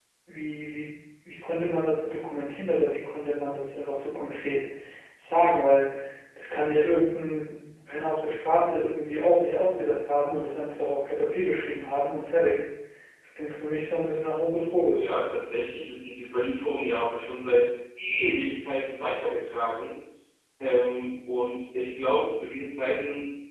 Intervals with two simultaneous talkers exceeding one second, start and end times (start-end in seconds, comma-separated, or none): none